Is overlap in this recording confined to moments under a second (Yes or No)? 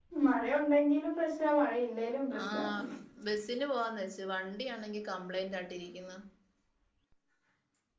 Yes